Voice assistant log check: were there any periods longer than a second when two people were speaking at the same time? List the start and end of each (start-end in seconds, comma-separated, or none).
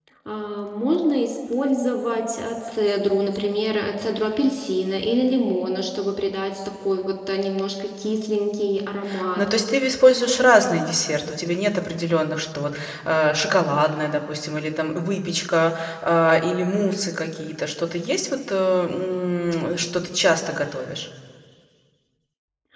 none